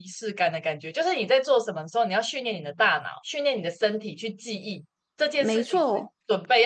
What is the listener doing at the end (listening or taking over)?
listening